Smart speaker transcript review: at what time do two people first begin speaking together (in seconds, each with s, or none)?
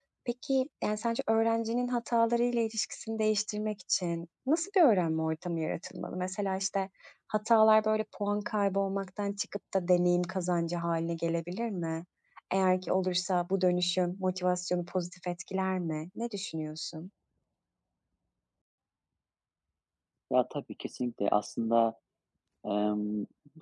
none